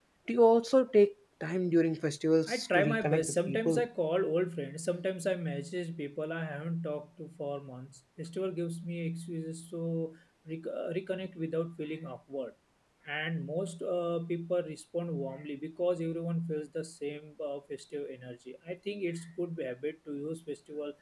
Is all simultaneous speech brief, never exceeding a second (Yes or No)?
No